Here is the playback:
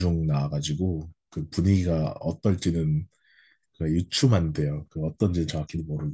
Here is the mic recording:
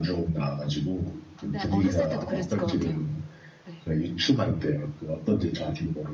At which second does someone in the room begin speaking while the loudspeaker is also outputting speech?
1 s

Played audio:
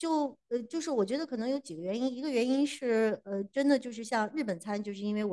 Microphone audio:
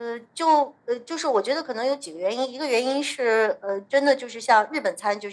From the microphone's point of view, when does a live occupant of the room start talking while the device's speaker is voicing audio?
none

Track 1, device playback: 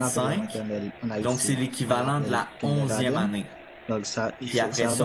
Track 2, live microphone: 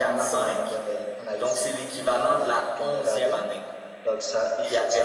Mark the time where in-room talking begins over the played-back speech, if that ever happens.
none

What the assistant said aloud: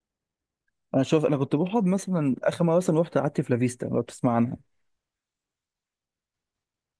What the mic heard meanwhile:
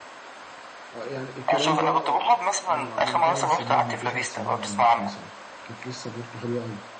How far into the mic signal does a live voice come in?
1 s

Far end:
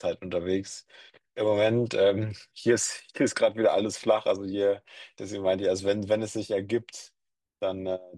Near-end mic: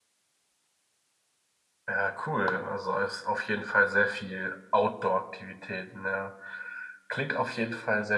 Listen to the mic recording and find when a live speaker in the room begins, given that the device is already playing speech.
2 s

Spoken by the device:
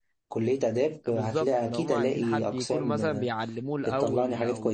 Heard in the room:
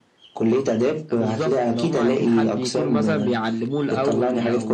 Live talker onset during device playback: none

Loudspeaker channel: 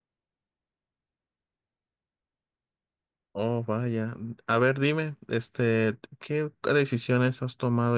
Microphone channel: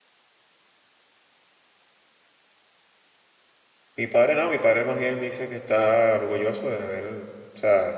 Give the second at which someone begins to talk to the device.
4 s

